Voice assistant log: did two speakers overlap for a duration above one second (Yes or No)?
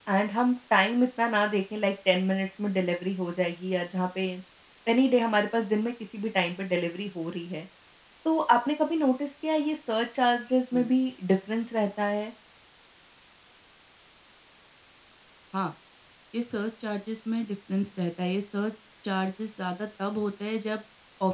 No